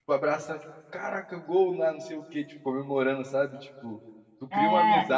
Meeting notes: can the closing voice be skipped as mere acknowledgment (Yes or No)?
Yes